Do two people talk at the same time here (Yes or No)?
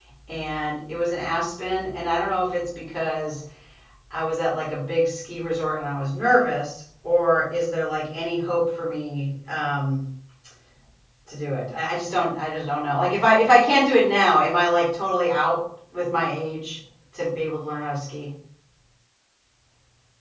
No